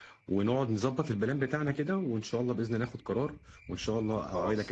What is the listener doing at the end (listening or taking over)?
taking over